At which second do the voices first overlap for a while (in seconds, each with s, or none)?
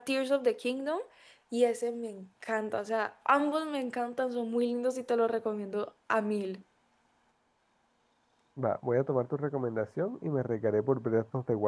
none